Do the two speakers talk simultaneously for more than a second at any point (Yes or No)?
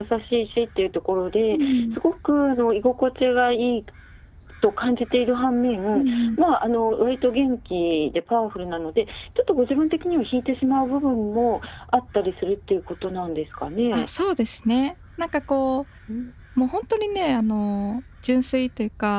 No